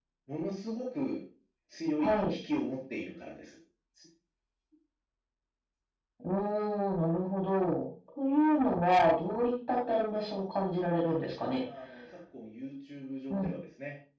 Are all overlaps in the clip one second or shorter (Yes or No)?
Yes